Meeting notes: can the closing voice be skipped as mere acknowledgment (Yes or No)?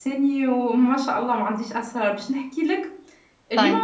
Yes